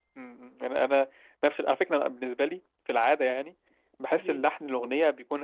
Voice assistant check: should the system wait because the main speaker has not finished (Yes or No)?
Yes